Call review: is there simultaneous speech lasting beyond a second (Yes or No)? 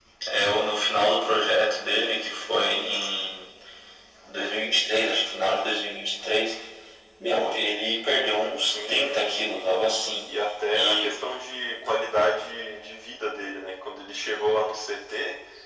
Yes